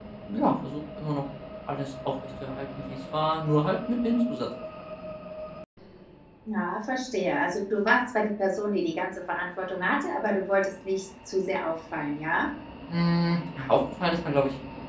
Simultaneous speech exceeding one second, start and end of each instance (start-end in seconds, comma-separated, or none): none